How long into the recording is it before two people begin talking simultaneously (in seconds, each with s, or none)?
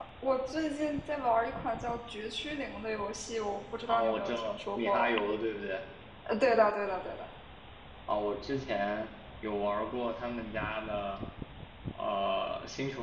3.9 s